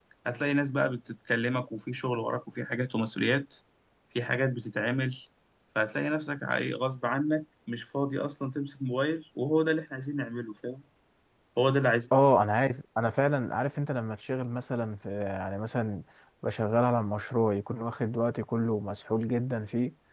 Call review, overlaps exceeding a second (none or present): none